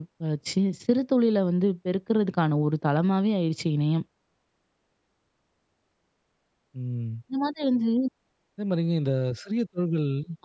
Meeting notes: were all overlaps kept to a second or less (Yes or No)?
Yes